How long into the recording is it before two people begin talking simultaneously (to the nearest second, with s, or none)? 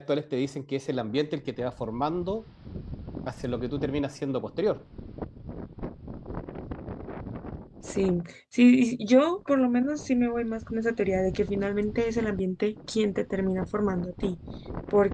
none